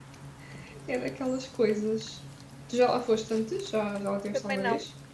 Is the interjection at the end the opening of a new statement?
Yes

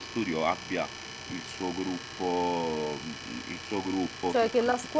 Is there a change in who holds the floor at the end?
Yes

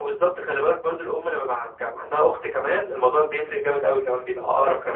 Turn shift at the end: Yes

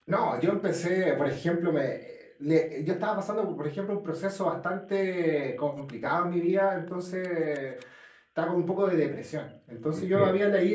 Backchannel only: Yes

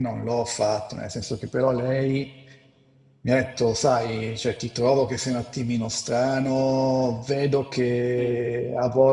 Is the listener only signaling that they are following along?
Yes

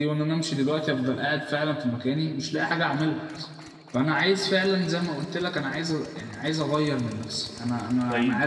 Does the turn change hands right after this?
Yes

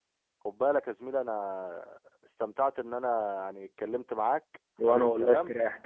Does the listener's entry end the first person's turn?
Yes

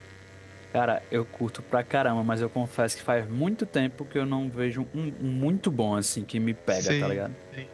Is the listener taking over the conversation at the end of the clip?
Yes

